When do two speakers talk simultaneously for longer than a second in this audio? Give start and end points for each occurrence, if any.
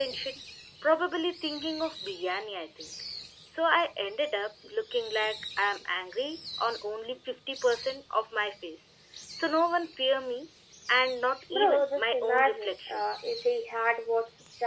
11.5-13.0

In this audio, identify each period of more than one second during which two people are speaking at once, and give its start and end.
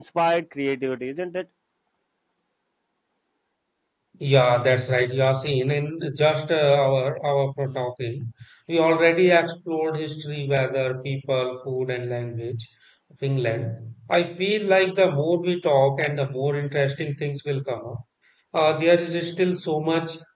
none

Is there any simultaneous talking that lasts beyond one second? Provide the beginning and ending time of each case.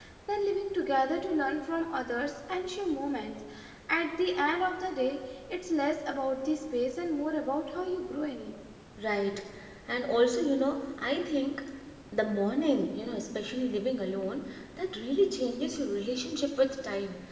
none

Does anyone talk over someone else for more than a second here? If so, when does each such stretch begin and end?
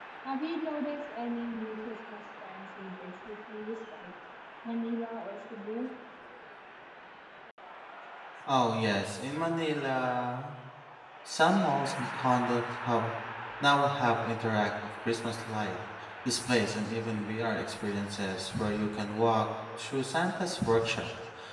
none

